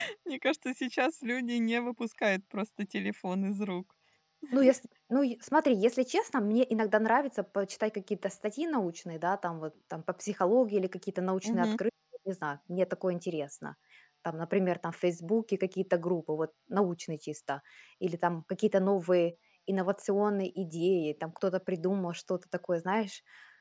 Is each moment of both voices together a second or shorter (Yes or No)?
Yes